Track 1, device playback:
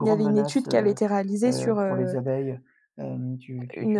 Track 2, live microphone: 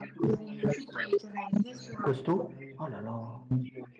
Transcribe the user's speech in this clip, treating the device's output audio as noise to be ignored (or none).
Costauds? Oh là là!